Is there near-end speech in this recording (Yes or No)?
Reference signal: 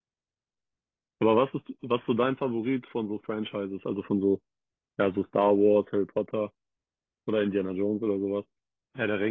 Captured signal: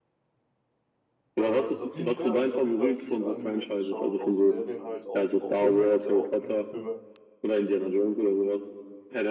Yes